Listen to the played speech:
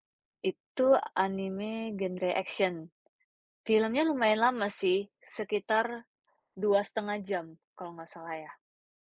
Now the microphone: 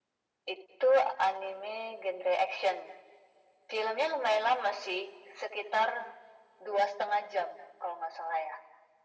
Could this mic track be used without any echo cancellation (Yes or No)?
No